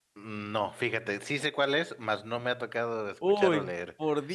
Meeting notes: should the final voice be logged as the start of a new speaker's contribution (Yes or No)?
Yes